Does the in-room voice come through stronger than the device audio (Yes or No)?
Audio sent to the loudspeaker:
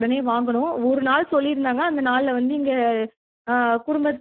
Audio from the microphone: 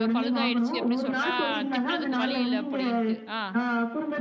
No